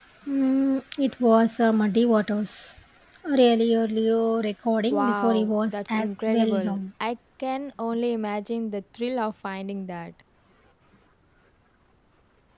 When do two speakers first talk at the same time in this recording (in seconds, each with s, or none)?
4.8 s